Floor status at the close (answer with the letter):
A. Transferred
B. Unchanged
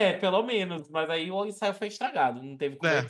A